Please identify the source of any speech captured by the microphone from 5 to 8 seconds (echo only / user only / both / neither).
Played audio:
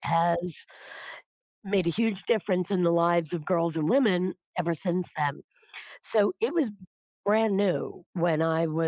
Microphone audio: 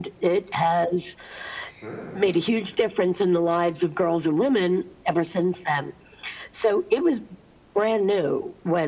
echo only